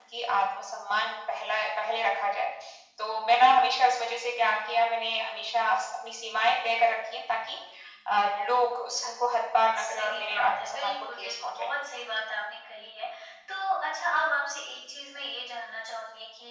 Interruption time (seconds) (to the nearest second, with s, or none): 10 s